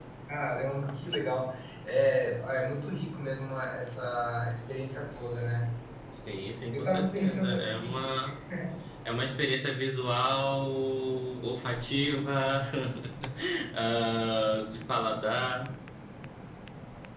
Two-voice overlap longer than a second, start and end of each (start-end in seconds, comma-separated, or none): 6.7-8.1